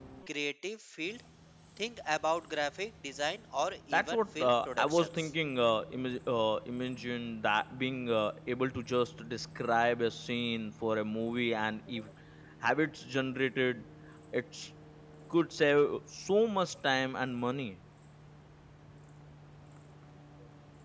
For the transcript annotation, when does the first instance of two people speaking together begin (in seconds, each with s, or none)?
3.9 s